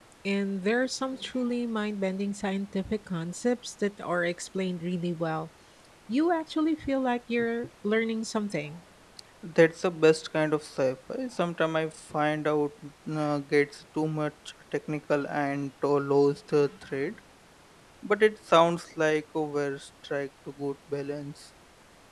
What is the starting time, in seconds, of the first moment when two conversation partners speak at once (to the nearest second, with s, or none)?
none